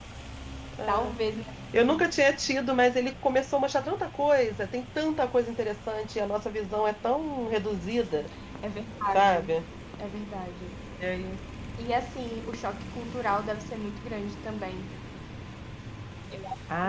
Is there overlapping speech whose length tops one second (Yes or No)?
No